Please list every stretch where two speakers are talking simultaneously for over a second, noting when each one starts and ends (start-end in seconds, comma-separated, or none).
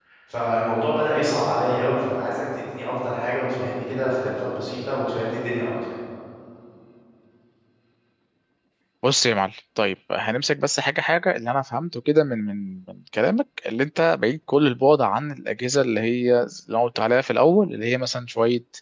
none